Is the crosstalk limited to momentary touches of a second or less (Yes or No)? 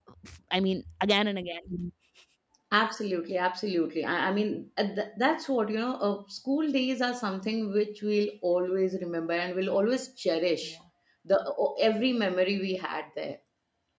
Yes